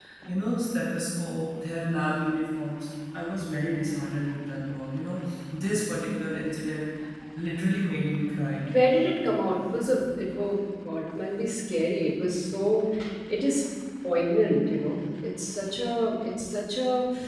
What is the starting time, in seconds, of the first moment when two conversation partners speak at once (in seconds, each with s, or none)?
none